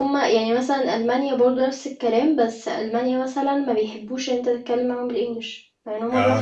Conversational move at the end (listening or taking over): taking over